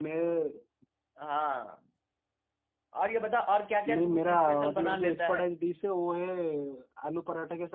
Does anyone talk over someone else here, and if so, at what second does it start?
3.9 s

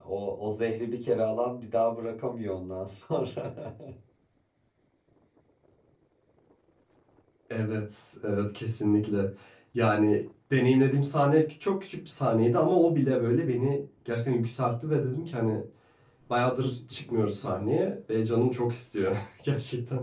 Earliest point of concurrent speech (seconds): none

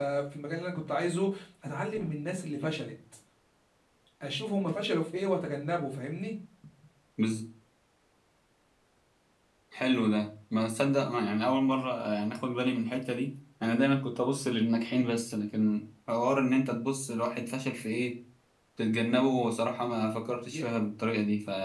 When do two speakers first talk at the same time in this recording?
none

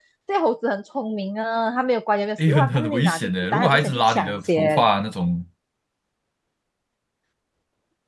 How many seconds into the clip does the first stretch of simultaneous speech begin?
2.4 s

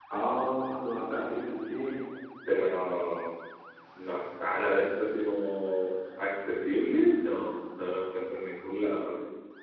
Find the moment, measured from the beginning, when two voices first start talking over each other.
none

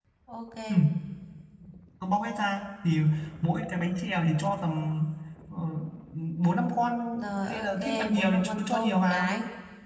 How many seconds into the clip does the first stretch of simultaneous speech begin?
7.5 s

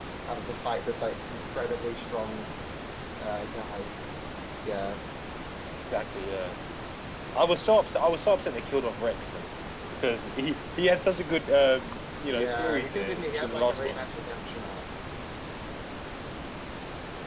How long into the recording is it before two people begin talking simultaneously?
12.3 s

